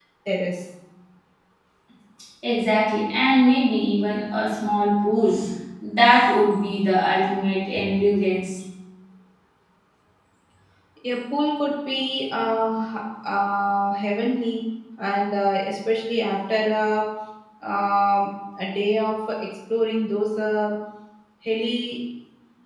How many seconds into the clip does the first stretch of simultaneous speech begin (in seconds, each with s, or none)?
none